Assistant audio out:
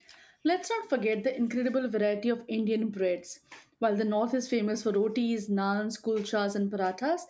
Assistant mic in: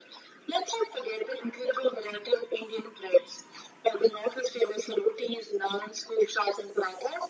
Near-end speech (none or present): none